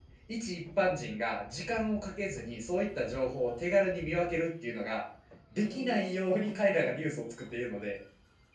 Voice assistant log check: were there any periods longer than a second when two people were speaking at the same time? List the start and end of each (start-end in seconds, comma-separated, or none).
5.5-7.1